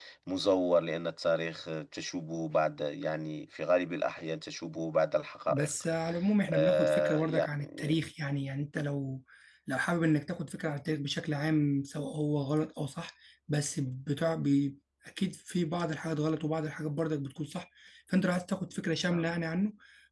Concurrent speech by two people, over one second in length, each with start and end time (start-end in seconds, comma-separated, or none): 6.5-7.9